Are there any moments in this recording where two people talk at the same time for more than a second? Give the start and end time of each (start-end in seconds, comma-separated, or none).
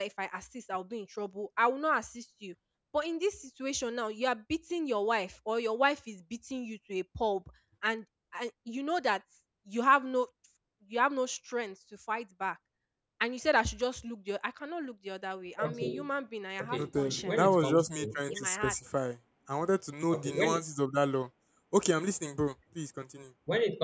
16.6-18.8